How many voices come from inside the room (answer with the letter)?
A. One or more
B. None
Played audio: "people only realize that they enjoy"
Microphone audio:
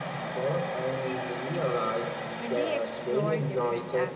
A